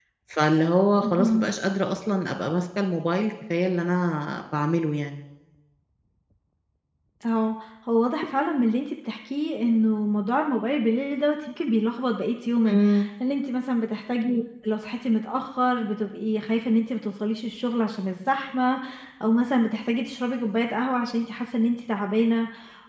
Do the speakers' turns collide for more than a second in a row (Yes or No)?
No